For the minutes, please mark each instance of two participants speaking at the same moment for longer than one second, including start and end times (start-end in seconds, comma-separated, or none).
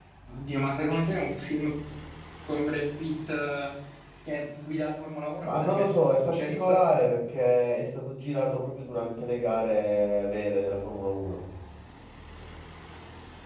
5.4-6.8